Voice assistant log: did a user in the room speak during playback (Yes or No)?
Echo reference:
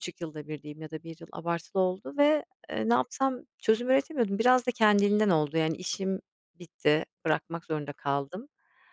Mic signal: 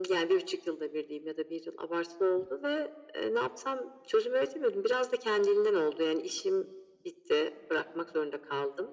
No